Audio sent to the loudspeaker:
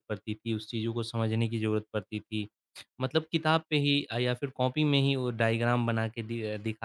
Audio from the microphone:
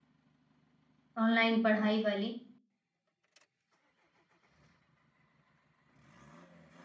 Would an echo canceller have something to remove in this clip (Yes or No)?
No